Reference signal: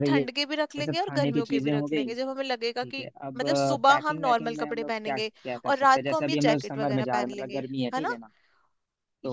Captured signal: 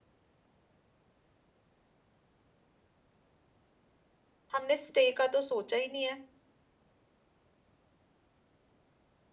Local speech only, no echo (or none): हमने स्टे का तो सोचा ही नहीं है